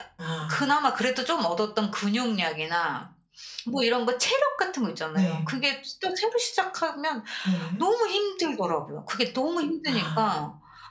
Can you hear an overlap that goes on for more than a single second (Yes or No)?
No